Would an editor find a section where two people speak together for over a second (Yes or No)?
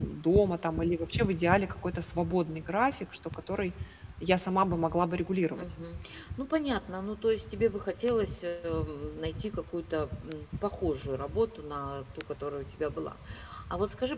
No